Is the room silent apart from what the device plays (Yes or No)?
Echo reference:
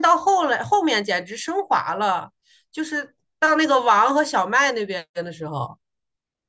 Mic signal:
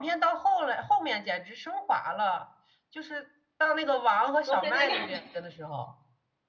No